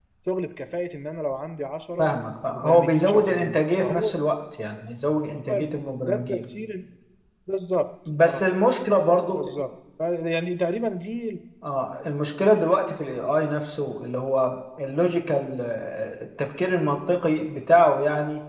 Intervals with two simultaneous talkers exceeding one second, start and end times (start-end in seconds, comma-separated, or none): 2.5-4.1